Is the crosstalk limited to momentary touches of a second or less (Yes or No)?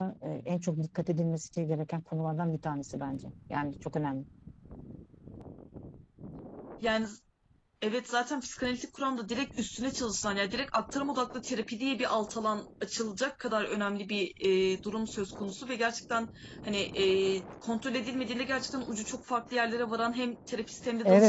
Yes